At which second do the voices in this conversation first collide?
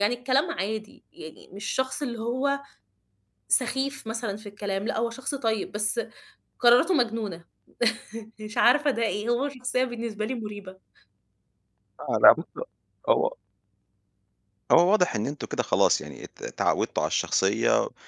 none

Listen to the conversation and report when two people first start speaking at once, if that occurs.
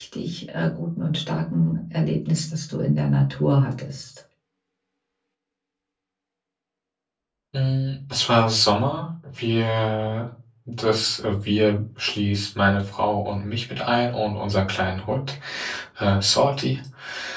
none

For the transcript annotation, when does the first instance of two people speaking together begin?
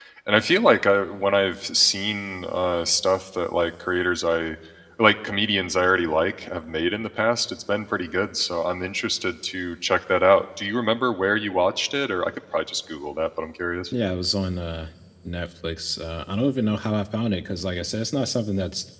none

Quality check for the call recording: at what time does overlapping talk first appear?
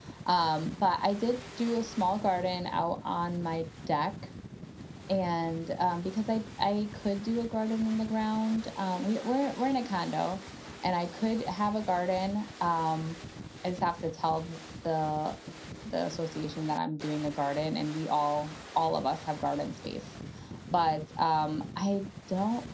none

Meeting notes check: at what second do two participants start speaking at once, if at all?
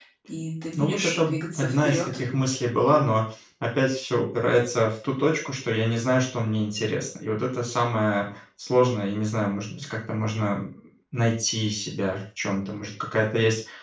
0.8 s

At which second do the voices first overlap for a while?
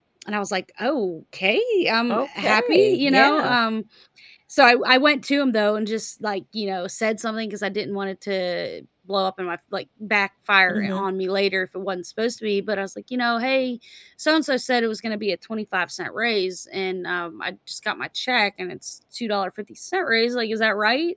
2.1 s

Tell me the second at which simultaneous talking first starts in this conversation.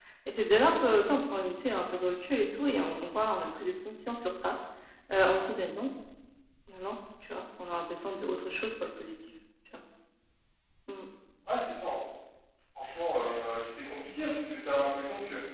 none

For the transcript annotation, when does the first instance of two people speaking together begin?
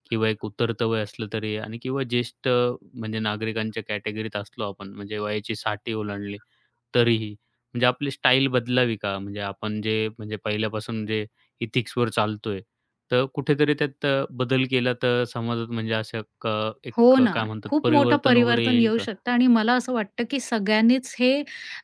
17.0 s

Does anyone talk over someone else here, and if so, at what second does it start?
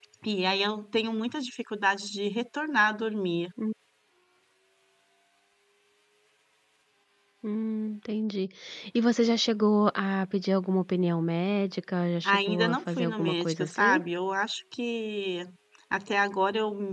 12.2 s

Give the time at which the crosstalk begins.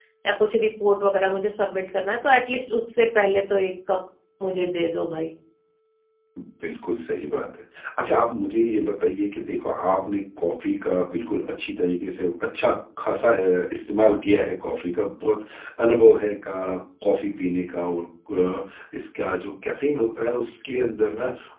none

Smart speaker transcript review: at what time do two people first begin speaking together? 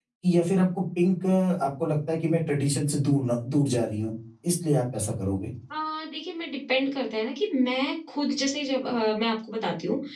none

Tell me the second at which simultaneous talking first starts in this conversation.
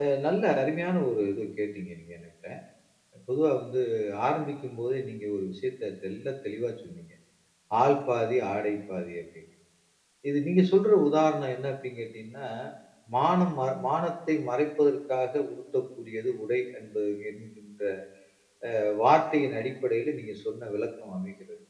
none

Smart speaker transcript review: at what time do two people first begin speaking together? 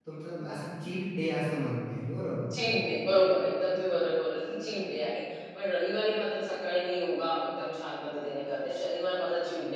none

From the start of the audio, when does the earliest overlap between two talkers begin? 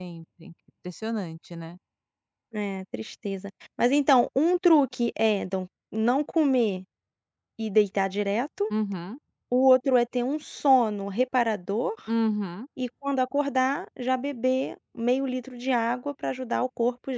none

